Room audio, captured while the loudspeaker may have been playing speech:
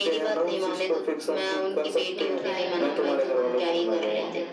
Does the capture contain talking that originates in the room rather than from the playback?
Yes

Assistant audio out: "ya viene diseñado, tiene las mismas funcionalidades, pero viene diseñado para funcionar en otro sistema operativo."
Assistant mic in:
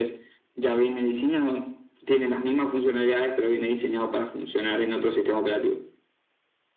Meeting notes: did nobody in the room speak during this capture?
Yes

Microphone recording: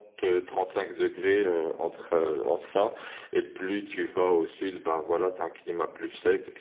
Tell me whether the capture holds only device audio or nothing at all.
Yes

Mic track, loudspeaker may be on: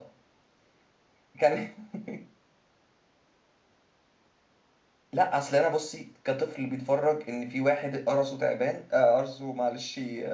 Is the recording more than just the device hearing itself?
Yes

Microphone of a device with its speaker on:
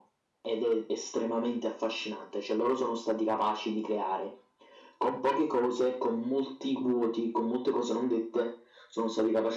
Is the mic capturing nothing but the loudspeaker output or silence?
Yes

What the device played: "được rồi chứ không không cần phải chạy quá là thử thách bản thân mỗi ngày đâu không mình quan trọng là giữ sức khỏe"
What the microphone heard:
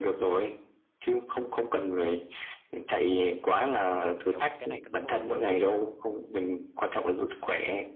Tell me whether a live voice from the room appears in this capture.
Yes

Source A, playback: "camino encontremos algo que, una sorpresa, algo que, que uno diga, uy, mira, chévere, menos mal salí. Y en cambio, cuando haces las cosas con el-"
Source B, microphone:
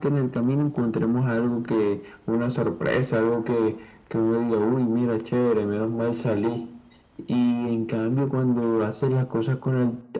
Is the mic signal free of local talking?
Yes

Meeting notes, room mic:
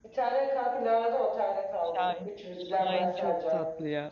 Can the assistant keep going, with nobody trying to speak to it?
No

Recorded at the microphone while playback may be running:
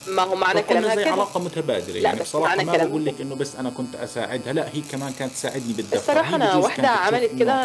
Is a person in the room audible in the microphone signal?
Yes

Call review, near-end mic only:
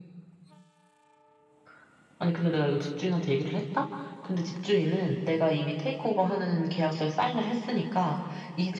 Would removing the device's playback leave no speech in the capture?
Yes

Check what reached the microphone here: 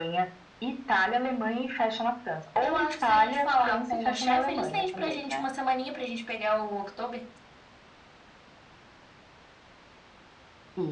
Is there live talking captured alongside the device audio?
No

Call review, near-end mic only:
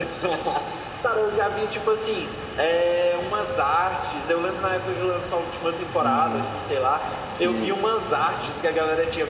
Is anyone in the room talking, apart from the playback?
Yes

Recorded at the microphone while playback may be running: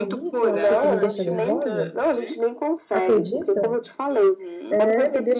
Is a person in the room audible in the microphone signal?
Yes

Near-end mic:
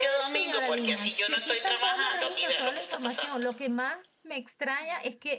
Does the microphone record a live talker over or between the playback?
Yes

